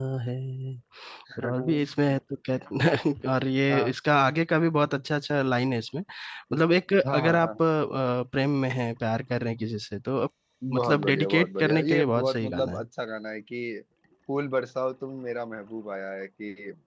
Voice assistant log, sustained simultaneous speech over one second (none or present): present